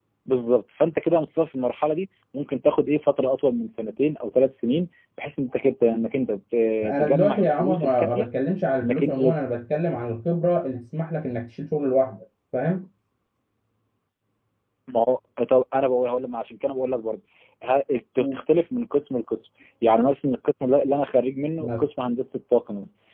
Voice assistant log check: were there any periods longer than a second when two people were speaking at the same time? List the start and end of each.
6.8-8.3

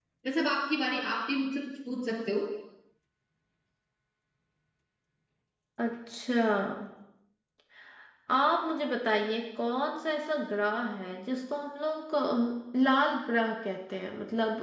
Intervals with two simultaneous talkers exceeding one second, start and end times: none

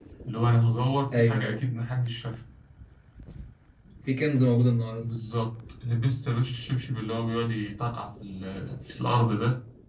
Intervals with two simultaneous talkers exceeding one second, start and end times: none

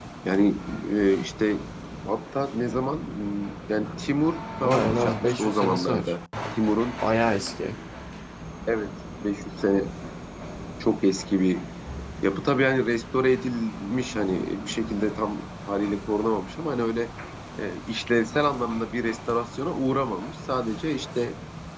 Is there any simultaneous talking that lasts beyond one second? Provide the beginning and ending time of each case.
4.6-6.1

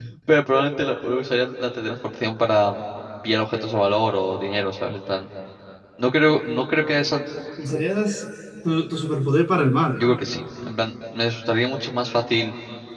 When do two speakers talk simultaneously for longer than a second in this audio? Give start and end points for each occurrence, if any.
none

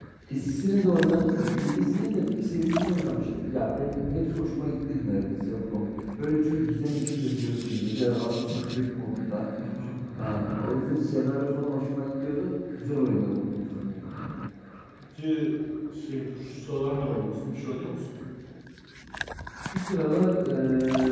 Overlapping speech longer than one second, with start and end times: none

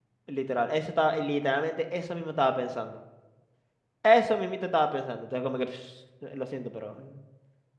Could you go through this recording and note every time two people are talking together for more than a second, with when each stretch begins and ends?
none

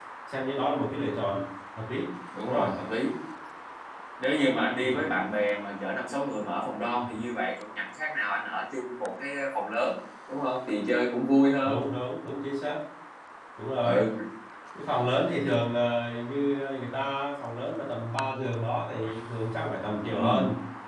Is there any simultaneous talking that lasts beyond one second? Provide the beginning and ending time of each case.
none

